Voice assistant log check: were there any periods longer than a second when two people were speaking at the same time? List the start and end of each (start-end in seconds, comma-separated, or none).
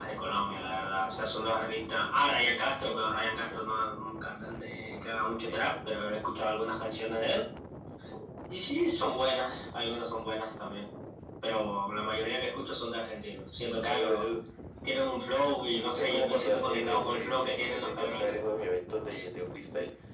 16.0-18.4